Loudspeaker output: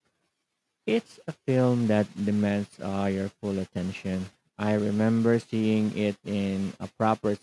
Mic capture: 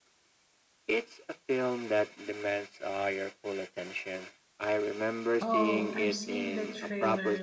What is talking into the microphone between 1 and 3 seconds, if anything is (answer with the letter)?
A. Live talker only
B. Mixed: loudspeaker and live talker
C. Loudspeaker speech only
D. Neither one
C